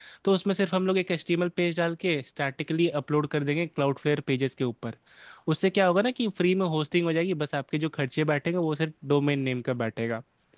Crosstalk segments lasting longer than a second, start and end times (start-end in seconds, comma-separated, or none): none